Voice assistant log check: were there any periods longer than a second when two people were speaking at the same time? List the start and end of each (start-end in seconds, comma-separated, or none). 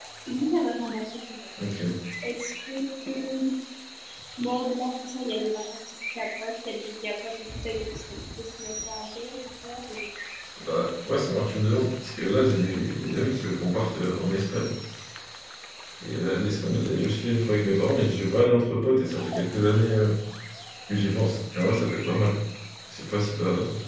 none